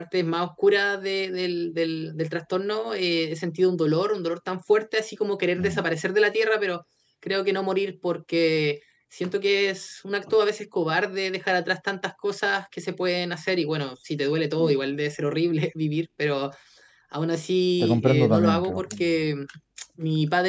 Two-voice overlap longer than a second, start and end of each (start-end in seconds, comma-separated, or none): 17.8-19.1